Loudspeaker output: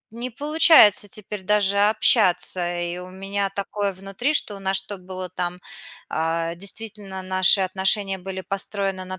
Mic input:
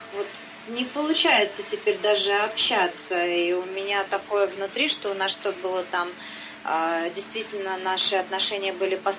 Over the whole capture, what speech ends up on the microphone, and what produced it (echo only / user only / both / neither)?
echo only